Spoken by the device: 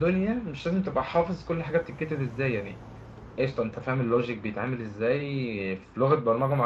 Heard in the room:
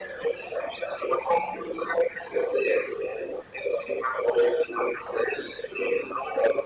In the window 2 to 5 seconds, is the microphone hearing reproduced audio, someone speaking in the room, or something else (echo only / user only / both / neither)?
echo only